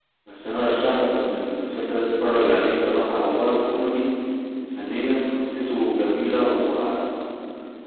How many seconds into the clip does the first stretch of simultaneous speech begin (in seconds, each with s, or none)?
none